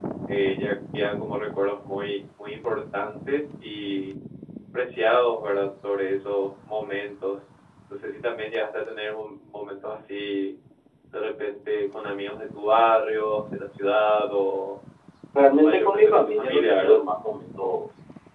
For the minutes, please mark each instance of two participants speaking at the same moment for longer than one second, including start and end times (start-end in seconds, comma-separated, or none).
15.6-17.0